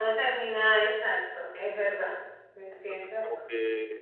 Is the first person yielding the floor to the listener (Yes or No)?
Yes